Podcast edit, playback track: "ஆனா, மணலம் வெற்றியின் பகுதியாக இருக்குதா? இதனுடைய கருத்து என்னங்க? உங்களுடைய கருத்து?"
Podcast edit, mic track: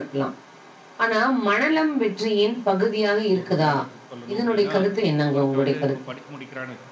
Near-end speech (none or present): present